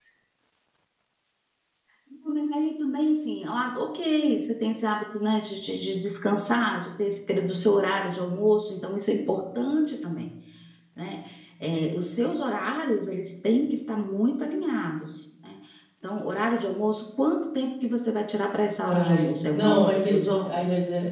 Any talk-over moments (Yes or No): Yes